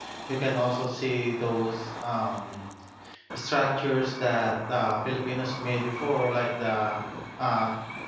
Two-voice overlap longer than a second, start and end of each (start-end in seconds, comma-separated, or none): none